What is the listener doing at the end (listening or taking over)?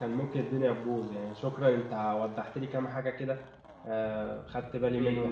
taking over